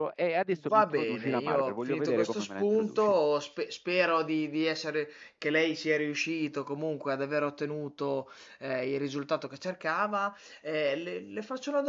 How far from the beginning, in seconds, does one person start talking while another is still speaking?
0.7 s

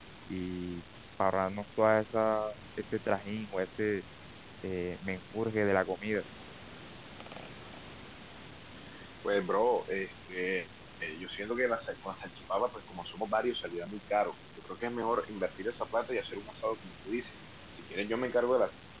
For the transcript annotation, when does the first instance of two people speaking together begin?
none

